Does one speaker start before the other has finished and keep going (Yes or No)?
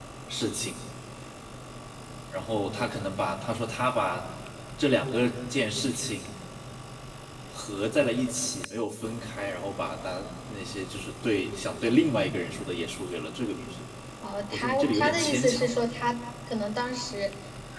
Yes